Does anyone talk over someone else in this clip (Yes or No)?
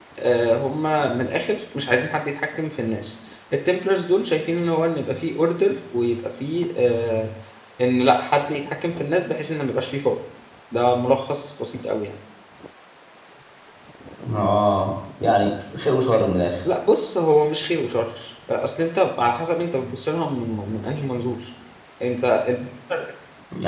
No